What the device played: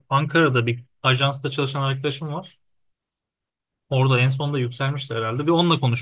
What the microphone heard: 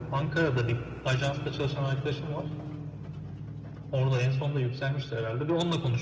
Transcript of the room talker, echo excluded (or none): none